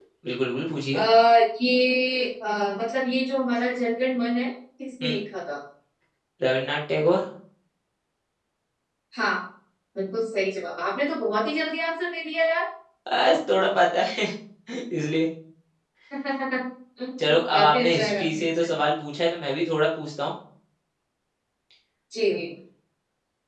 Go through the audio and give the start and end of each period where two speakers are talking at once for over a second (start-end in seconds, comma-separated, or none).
17.3-18.7